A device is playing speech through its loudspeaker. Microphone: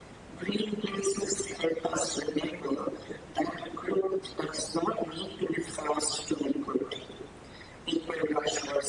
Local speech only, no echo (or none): none